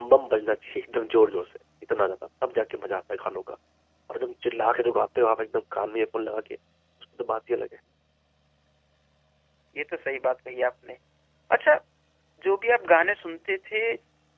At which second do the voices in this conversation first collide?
none

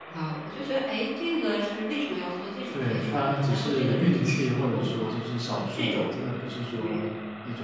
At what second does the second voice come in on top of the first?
3 s

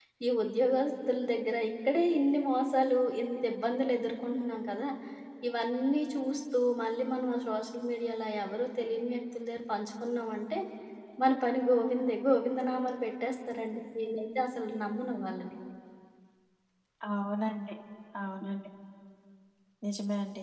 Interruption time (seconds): none

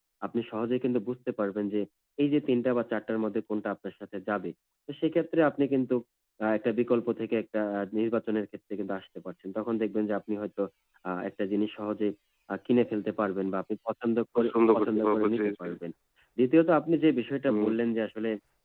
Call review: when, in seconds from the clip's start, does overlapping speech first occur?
14 s

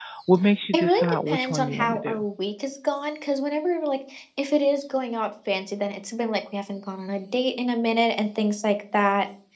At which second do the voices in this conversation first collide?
1 s

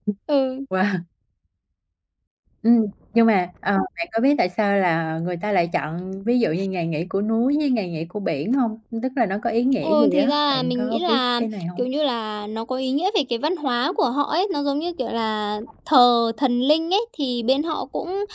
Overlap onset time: 10 s

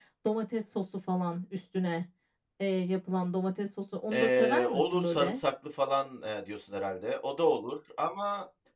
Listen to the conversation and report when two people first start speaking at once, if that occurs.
4 s

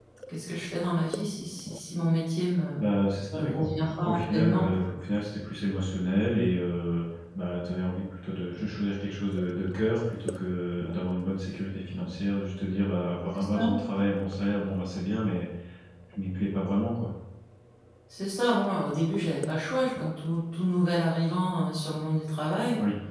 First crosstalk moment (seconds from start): 3 s

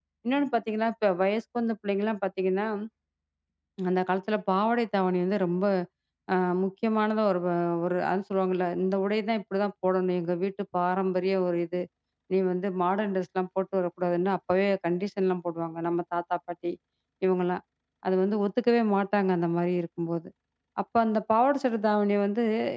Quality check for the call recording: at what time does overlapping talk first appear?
none

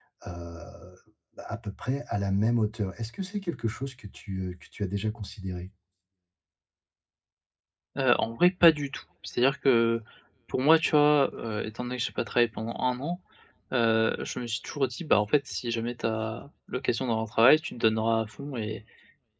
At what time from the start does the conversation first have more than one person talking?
none

